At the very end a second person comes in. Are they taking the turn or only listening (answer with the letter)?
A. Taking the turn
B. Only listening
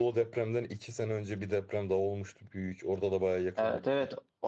A